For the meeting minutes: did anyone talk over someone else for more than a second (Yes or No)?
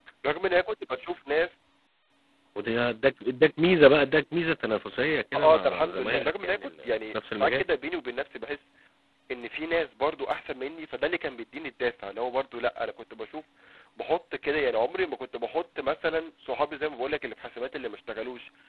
Yes